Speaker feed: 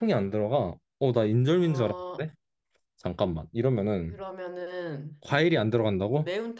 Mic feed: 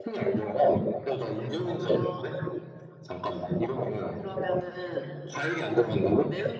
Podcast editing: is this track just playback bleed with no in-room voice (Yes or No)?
Yes